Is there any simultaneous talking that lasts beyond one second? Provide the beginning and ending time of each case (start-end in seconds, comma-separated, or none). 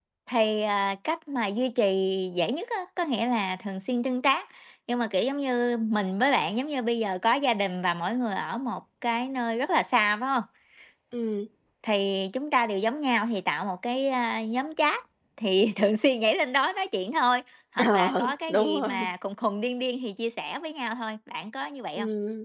17.9-19.1